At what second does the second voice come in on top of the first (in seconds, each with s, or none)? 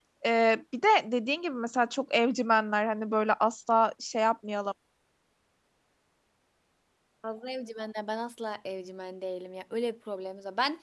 none